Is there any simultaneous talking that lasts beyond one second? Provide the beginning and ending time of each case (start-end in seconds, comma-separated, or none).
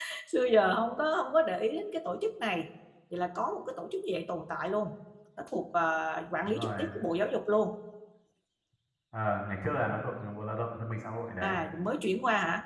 none